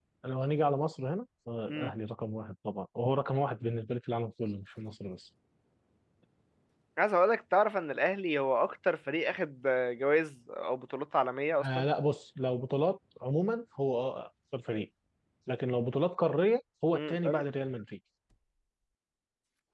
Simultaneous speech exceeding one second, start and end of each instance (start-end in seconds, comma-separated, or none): none